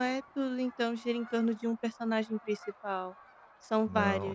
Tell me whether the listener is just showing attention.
No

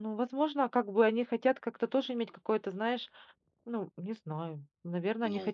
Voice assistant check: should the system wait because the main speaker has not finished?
Yes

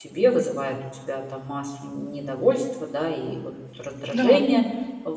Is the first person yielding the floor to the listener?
No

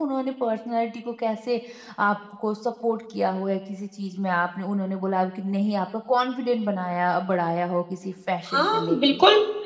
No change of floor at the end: No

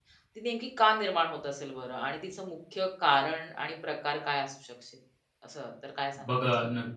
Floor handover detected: Yes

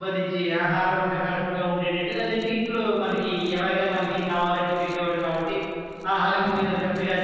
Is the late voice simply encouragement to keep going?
Yes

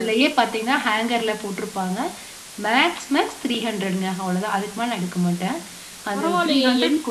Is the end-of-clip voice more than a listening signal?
Yes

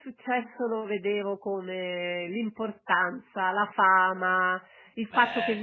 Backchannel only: Yes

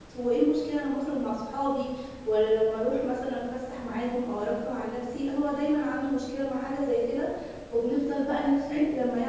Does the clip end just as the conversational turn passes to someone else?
No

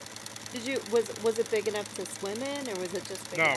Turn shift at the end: Yes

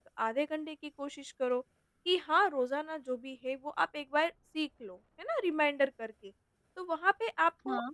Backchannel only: Yes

